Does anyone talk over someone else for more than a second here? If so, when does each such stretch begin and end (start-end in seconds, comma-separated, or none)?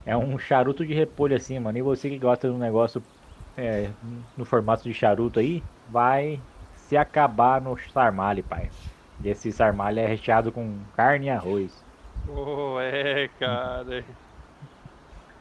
none